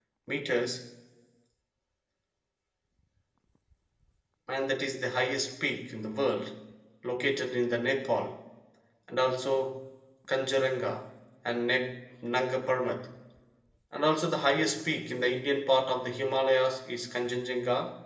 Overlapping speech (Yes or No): No